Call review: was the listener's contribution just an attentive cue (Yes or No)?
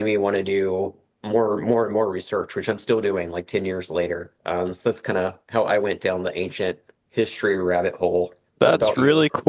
No